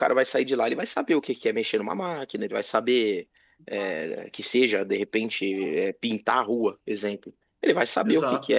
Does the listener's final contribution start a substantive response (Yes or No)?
No